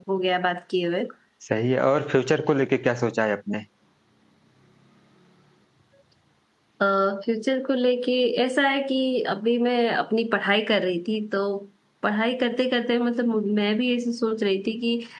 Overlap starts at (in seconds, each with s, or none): none